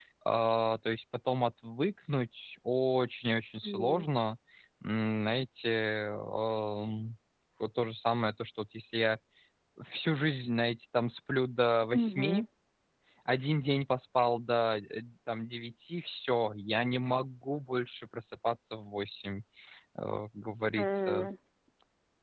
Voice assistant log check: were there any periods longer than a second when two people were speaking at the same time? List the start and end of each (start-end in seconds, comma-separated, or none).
none